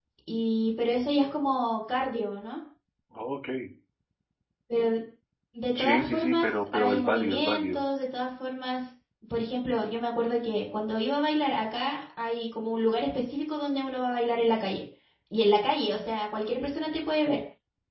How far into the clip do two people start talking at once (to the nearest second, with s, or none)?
6 s